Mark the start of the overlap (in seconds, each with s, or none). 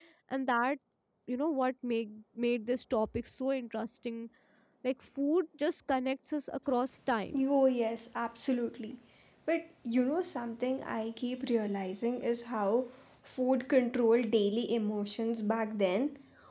none